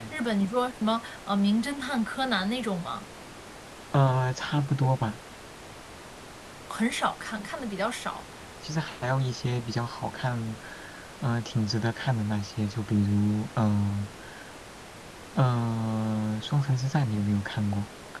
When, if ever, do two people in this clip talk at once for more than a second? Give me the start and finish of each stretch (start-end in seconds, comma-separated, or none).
none